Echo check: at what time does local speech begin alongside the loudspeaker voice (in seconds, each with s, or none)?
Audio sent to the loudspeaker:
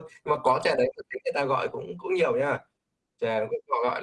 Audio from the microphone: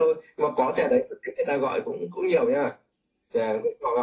none